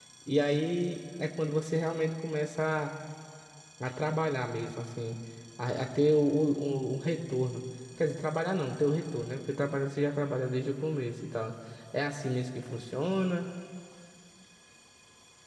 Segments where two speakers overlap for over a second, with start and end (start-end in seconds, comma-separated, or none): none